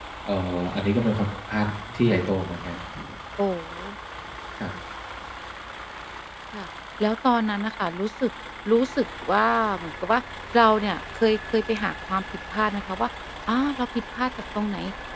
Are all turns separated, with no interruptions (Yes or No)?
Yes